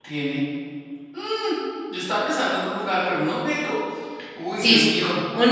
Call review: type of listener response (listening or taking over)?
taking over